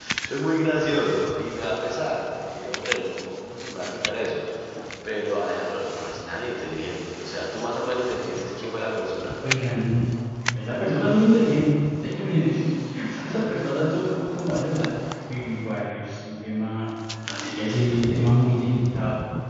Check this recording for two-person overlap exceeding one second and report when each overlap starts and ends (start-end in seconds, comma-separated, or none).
none